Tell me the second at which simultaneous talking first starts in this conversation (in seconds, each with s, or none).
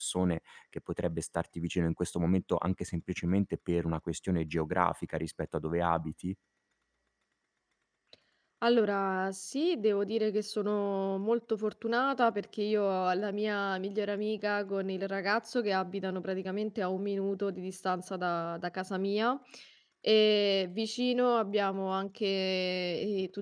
none